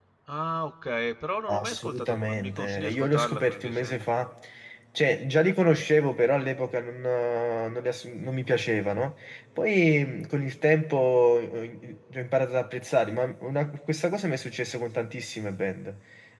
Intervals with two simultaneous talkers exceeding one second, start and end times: 1.5-3.9

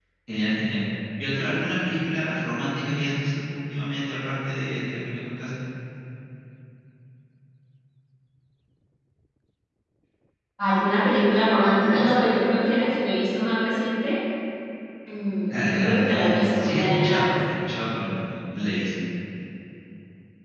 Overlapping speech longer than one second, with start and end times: 15.5-17.3

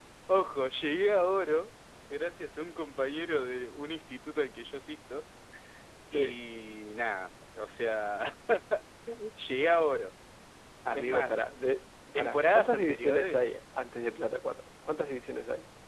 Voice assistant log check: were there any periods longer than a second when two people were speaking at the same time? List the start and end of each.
12.1-13.4

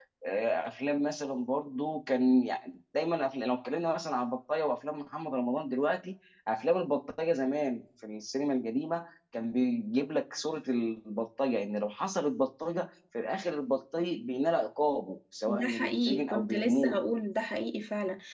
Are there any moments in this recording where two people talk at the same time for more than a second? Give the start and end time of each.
15.5-16.9

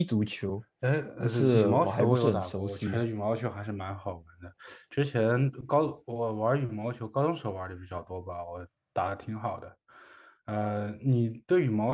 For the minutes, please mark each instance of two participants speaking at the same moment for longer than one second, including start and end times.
1.2-3.0

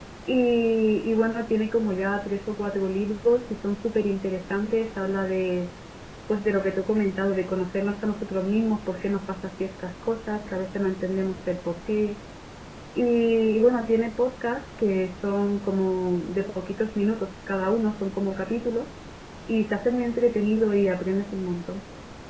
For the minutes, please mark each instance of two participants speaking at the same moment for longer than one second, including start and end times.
none

